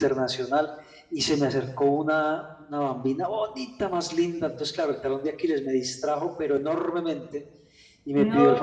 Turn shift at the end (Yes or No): No